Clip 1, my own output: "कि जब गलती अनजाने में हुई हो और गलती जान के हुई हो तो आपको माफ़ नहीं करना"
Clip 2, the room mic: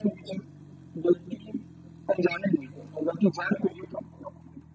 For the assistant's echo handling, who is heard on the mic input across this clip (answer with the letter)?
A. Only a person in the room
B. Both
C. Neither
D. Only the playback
D